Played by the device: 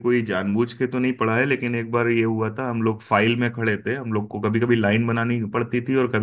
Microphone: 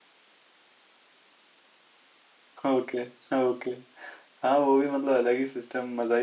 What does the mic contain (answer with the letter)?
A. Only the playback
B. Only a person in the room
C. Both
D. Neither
B